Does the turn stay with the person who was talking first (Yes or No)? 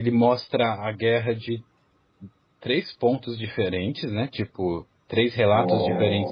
Yes